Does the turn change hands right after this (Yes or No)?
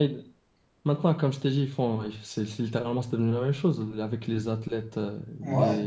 No